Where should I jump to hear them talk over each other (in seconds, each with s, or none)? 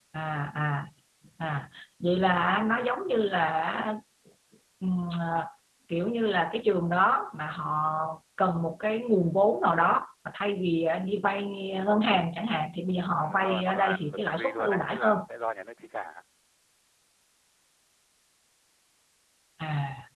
13.2 s